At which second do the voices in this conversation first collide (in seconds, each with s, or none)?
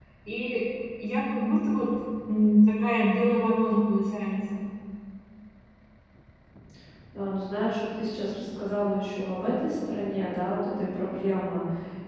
none